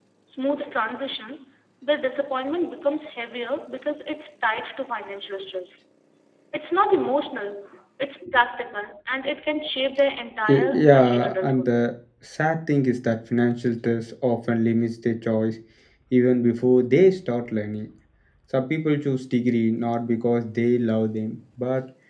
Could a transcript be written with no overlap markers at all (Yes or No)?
No